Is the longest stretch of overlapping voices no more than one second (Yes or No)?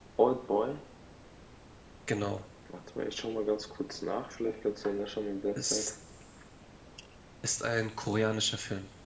Yes